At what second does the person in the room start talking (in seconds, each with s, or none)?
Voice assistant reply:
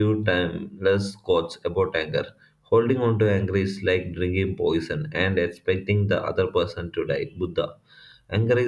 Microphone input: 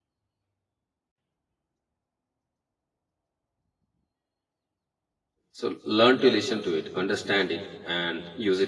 5.5 s